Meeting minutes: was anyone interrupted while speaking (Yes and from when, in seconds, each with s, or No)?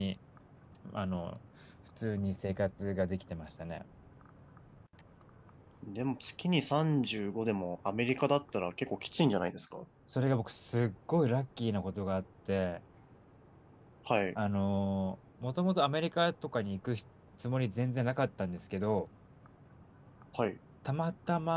No